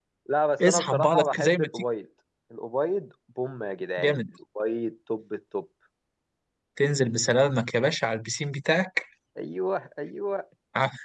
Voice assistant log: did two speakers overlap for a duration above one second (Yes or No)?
Yes